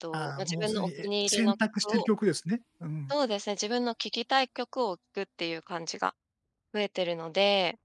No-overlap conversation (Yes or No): No